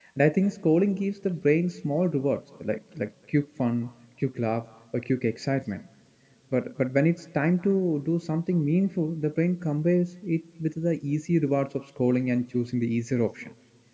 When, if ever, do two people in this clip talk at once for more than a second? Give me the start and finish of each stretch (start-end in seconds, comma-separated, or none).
none